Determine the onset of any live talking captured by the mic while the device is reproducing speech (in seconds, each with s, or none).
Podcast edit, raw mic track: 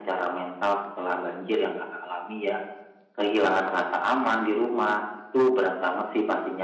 none